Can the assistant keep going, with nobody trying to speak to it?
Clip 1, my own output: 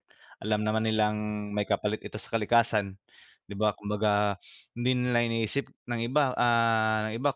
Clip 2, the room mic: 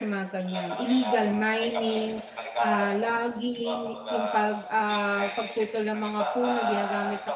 No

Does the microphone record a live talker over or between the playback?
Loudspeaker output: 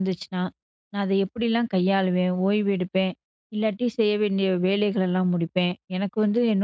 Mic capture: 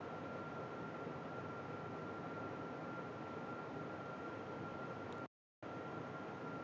No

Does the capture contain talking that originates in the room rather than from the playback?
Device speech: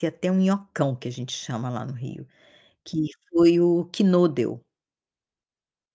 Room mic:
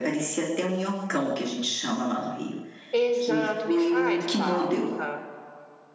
Yes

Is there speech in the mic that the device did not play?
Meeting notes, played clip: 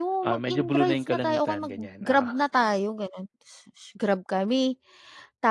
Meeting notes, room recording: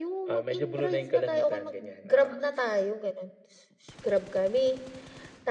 No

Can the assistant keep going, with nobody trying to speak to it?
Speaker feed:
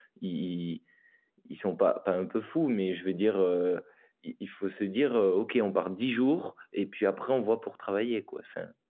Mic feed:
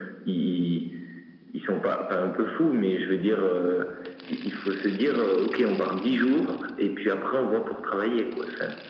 Yes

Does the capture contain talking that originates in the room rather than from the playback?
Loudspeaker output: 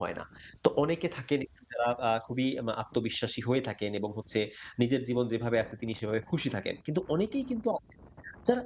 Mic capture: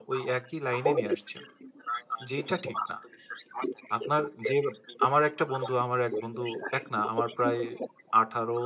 Yes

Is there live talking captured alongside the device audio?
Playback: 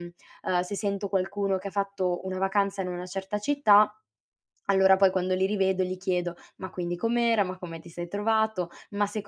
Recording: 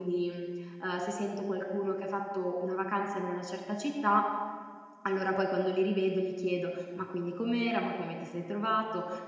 No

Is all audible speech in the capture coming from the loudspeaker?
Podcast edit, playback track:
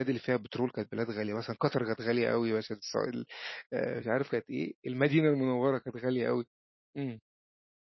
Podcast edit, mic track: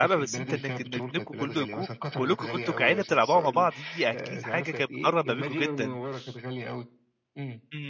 No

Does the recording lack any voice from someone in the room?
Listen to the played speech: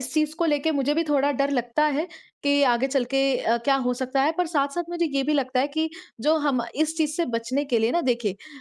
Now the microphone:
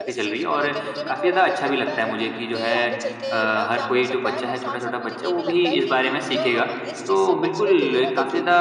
No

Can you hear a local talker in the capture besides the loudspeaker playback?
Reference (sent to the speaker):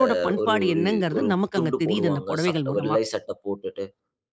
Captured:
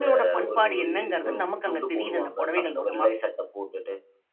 No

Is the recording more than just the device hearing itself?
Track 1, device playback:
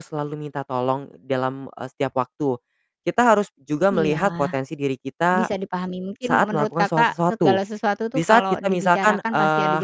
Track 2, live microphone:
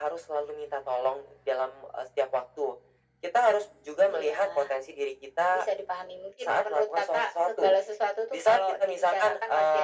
No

